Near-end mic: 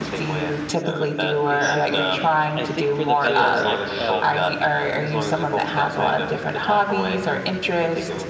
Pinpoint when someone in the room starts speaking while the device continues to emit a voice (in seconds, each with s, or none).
1.5 s